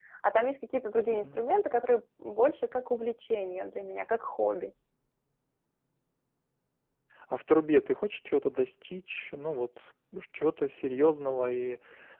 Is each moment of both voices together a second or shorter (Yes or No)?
Yes